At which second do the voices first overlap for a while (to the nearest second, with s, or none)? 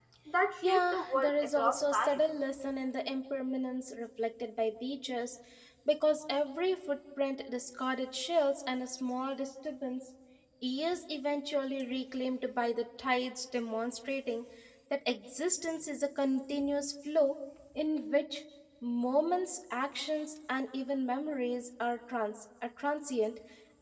1 s